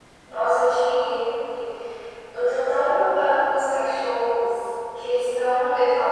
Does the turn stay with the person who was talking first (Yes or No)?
Yes